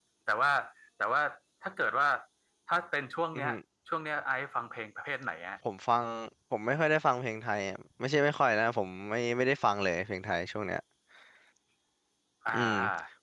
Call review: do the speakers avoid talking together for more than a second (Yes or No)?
Yes